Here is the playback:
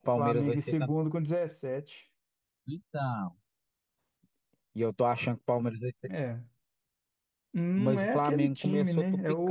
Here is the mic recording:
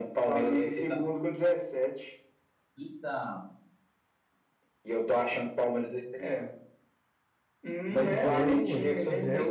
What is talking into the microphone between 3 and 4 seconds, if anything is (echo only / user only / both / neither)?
echo only